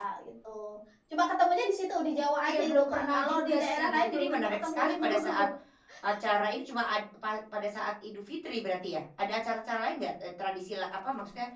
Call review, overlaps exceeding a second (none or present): present